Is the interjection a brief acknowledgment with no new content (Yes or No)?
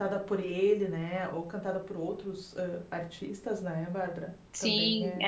No